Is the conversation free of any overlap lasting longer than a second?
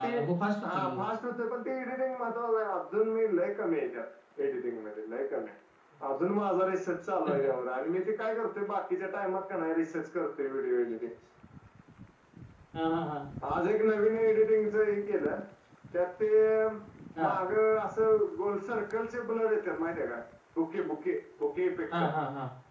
Yes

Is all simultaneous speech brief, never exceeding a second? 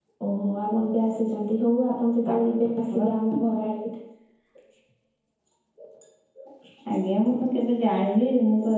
Yes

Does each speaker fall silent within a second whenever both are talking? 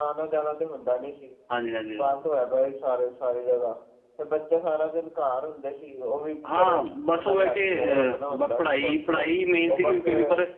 No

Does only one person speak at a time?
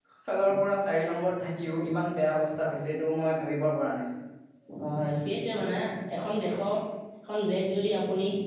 Yes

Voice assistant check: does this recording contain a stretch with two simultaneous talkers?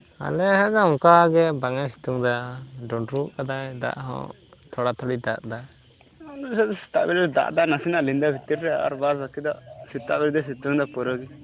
No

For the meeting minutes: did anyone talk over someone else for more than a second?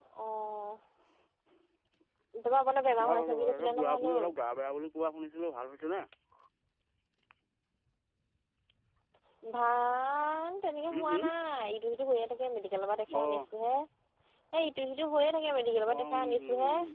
Yes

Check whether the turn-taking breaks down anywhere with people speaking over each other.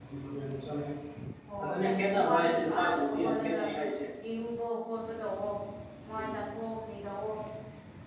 Yes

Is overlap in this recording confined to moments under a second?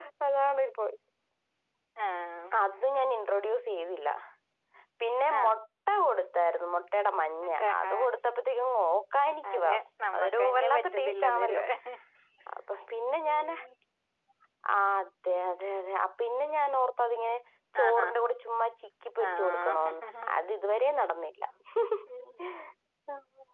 No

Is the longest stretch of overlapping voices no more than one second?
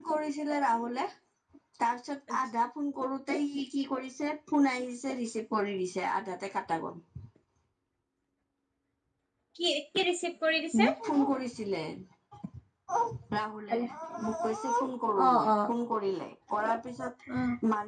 Yes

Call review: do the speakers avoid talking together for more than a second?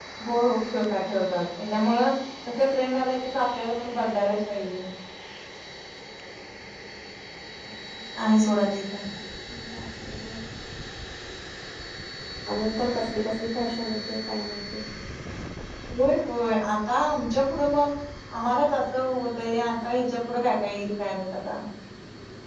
Yes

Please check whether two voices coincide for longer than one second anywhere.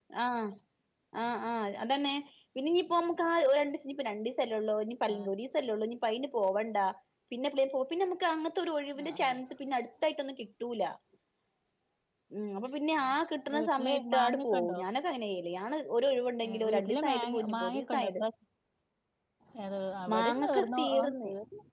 Yes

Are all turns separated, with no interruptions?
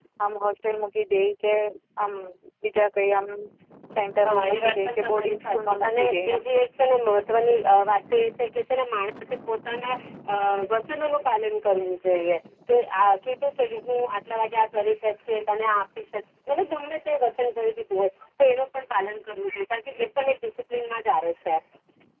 No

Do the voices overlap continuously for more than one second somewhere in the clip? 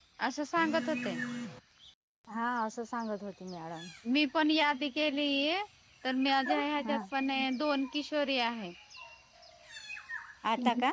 No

